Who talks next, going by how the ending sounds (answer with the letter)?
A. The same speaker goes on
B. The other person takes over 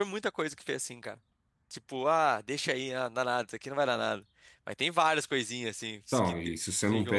B